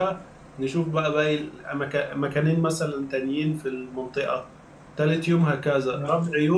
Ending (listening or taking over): listening